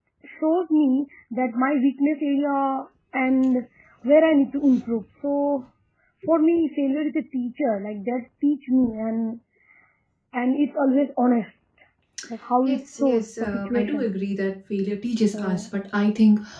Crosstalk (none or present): present